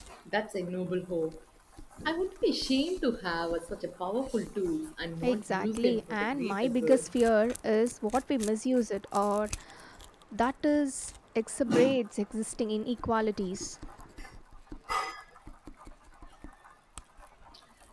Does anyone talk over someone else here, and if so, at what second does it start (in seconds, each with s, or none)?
5.2 s